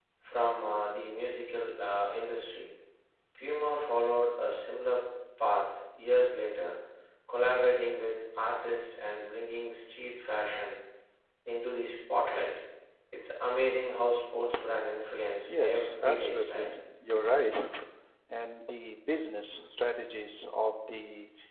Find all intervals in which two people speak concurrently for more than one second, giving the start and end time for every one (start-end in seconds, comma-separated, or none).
15.5-16.7